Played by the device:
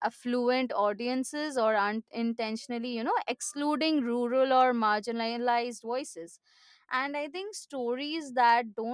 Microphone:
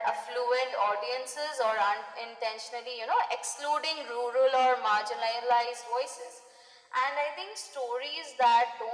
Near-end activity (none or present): none